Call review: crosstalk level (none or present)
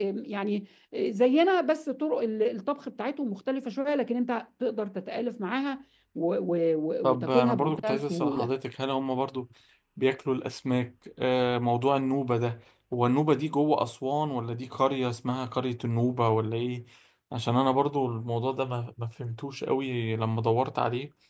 present